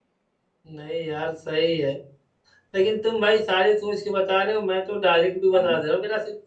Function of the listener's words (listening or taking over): listening